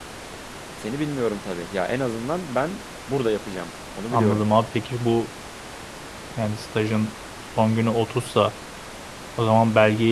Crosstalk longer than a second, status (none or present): none